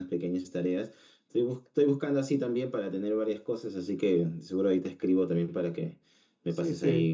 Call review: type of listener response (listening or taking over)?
taking over